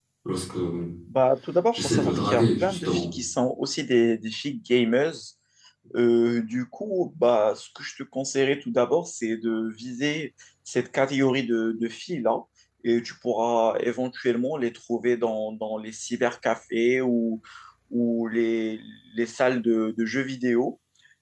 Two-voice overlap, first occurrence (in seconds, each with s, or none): 1.7 s